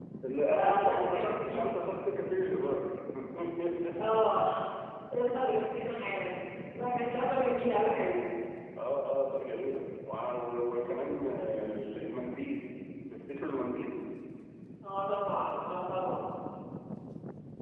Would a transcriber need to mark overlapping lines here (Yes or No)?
Yes